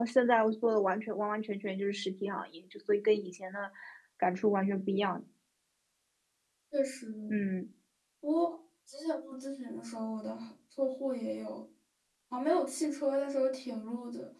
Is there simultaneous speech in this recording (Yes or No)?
No